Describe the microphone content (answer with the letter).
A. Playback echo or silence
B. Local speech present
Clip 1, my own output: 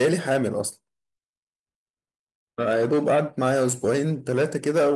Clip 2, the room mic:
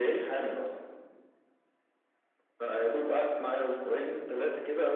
A